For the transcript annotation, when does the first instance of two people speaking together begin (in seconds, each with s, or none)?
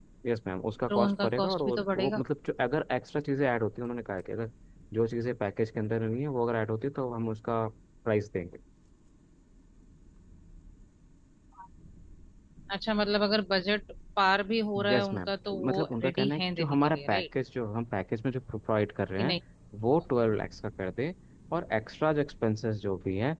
0.9 s